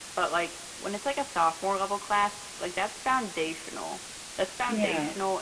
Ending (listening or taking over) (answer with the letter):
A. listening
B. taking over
A